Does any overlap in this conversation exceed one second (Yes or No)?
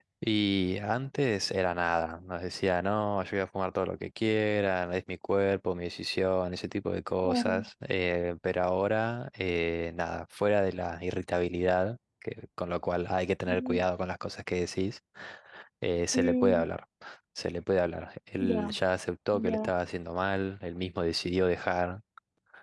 No